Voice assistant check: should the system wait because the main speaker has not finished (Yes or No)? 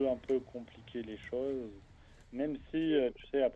Yes